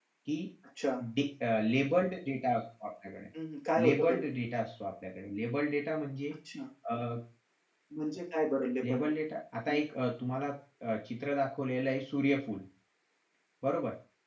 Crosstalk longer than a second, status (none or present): none